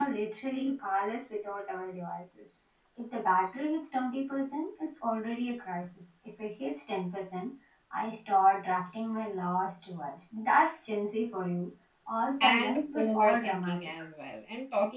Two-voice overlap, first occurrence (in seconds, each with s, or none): 12.4 s